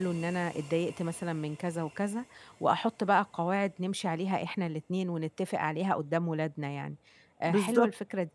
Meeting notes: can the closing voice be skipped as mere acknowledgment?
Yes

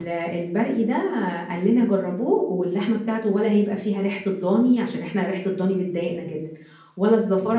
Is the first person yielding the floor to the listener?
Yes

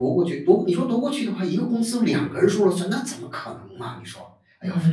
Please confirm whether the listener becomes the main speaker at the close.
Yes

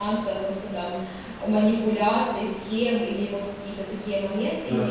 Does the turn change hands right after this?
No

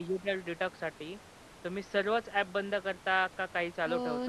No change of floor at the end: No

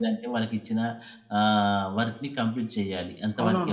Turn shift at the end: Yes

